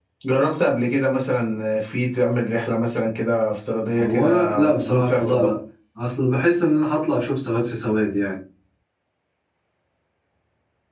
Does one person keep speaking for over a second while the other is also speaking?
Yes, from 4.0 s

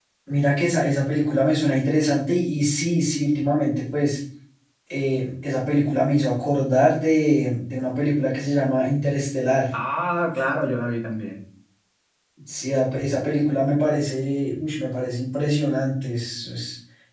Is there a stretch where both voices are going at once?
No

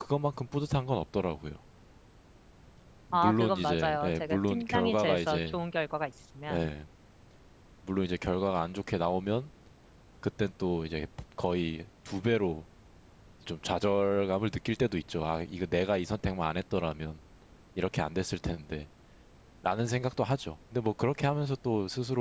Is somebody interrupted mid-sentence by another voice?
Yes, from 3.1 s

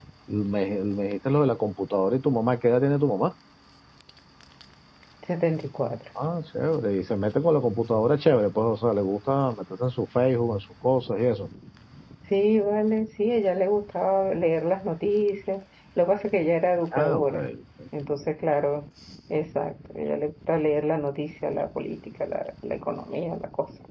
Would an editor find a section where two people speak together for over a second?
No

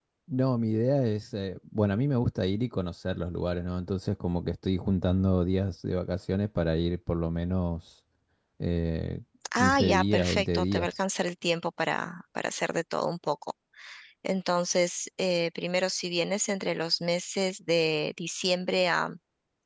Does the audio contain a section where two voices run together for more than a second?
Yes, from 9.4 s

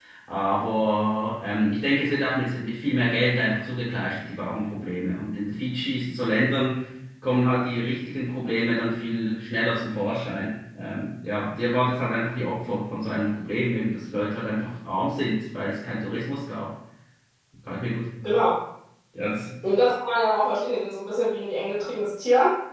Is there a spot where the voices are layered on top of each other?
No

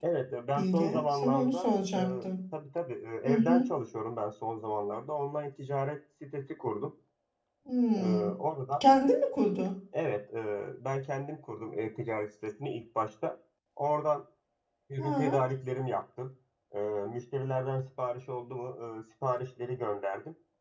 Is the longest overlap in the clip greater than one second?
Yes, from 0.6 s

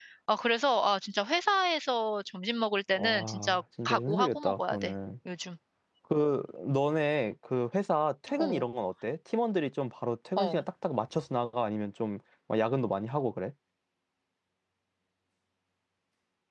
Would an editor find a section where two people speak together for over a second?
Yes, from 2.9 s

